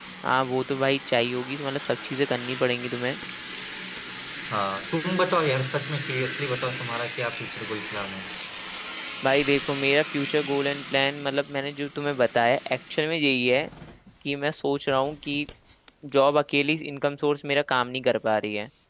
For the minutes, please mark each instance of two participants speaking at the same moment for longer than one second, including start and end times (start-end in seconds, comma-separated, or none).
none